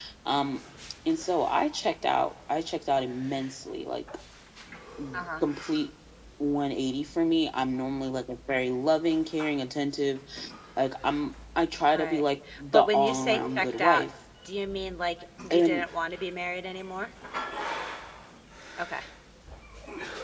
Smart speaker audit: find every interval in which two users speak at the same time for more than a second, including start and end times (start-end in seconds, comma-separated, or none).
12.7-14.1